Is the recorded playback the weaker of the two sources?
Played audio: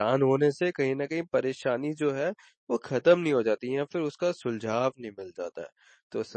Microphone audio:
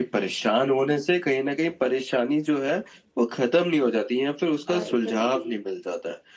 No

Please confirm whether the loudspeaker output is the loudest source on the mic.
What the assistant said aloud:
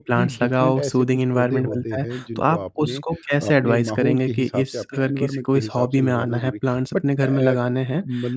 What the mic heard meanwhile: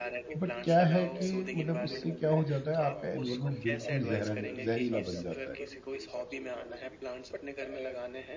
No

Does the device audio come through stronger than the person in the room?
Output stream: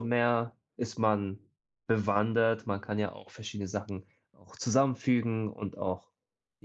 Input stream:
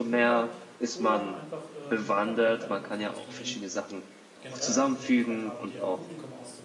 Yes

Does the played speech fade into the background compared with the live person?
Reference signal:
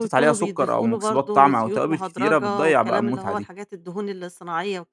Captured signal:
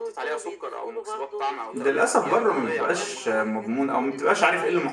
Yes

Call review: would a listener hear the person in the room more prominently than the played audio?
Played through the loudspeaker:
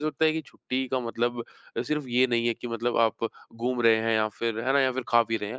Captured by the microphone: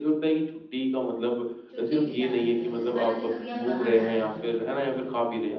No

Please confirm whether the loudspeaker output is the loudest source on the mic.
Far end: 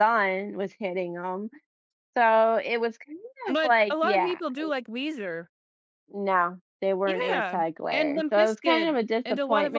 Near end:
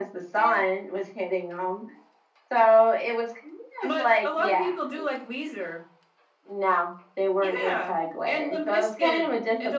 Yes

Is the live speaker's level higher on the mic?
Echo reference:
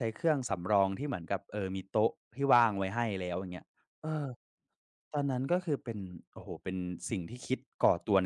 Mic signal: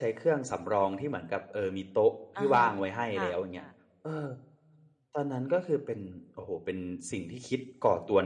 No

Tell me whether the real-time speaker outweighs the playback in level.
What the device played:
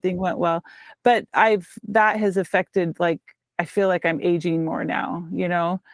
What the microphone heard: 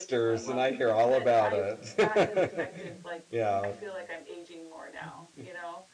Yes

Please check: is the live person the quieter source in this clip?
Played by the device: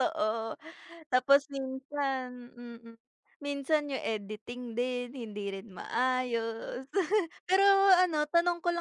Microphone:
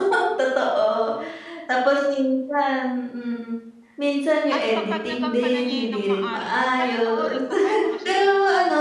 Yes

